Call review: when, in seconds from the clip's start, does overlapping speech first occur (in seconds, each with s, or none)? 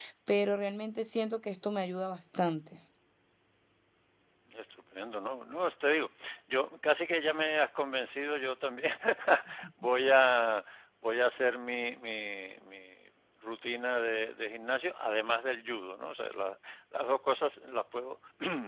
none